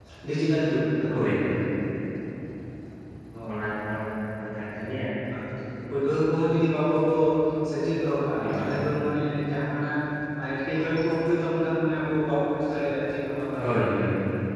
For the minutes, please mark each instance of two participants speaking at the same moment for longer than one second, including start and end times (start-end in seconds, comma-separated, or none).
none